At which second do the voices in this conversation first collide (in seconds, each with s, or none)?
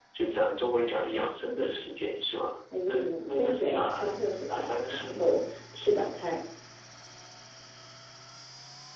2.7 s